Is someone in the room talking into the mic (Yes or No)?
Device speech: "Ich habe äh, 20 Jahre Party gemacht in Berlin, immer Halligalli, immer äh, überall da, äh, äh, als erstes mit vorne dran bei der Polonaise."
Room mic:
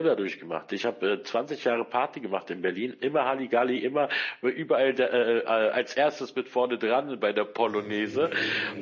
Yes